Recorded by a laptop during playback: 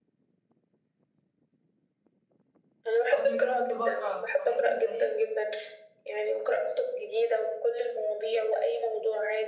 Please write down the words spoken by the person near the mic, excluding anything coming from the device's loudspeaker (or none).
قبل كده كنت بقرا حاجات في التاريخ